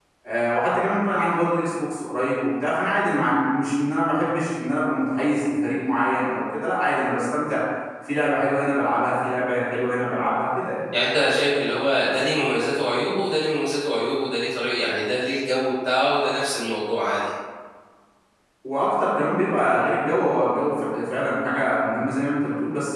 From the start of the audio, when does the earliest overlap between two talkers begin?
none

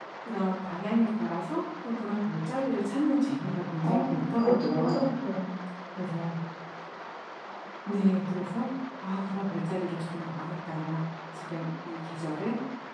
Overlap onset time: 3.8 s

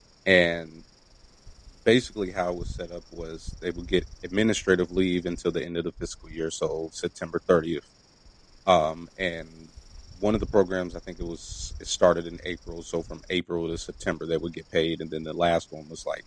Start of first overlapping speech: none

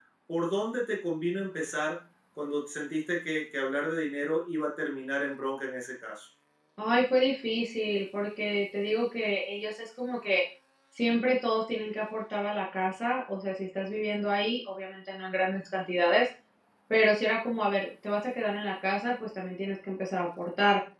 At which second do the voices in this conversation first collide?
none

